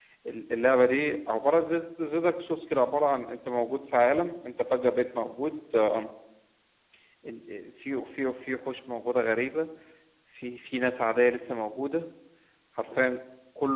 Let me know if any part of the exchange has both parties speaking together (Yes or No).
No